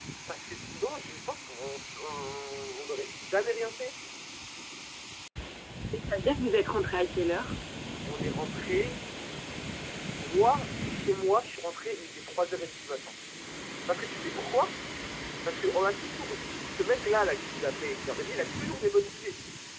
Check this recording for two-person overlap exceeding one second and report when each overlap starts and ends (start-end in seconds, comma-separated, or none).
none